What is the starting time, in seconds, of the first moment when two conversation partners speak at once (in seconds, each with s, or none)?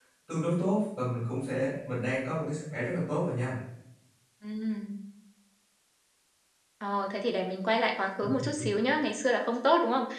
none